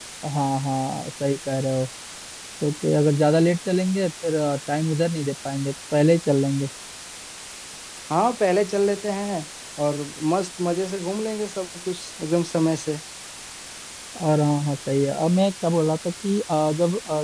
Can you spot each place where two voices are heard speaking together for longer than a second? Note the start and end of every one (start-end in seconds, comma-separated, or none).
none